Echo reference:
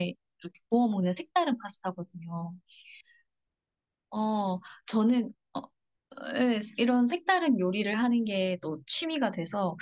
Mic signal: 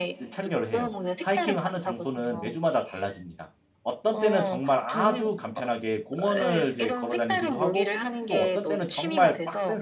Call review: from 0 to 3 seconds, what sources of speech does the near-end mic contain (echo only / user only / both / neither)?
both